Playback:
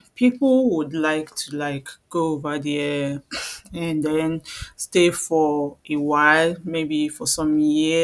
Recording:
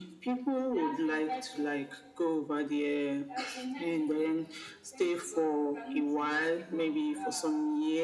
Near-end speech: present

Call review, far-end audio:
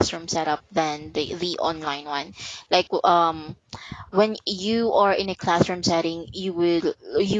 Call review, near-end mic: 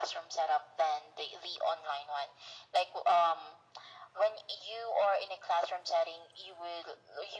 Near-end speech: none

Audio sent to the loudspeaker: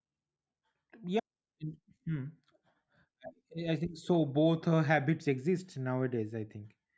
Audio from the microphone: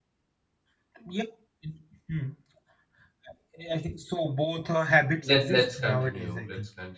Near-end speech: present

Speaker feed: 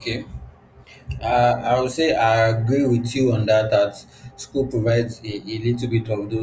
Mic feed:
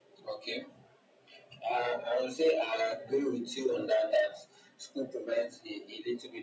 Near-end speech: none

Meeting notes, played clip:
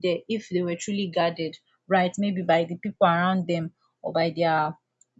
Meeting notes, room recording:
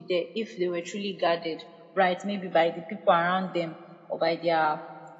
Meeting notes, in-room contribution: none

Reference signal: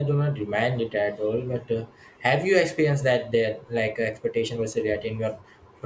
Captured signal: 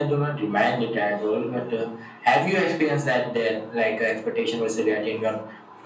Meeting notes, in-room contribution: none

